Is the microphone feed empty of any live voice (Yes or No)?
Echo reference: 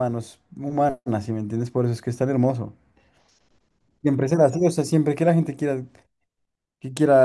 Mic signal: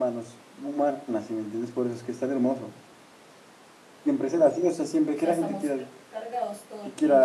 No